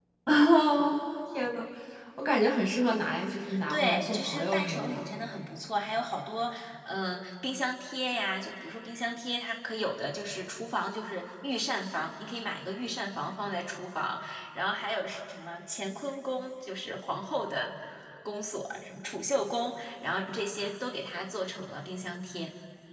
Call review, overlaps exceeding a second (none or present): present